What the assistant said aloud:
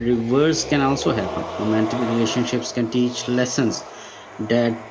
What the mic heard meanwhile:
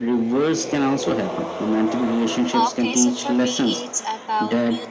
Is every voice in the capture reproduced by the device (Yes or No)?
No